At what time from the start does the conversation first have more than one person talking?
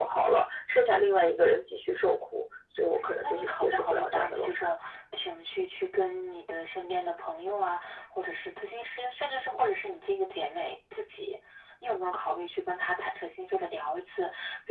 2.9 s

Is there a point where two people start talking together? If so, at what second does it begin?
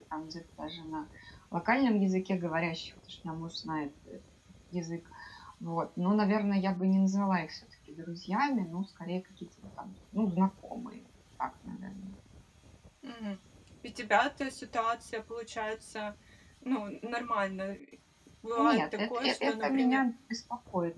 18.6 s

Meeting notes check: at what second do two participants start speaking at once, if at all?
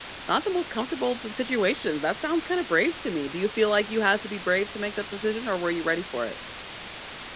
none

